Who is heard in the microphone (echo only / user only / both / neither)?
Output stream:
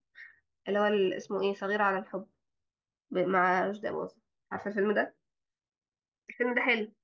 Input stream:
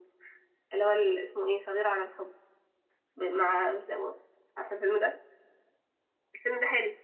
echo only